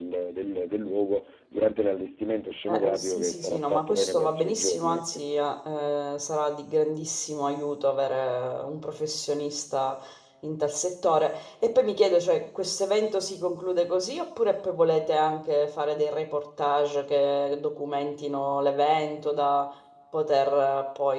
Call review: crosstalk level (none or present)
present